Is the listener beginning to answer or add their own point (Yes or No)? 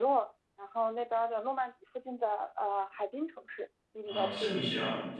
Yes